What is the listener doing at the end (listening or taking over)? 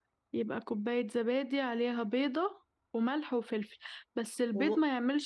listening